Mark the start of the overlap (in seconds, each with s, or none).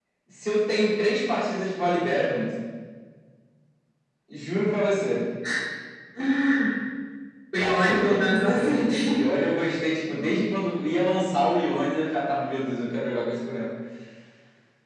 7.6 s